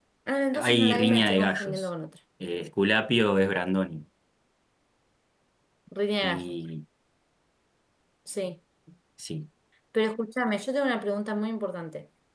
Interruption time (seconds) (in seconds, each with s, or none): 0.5 s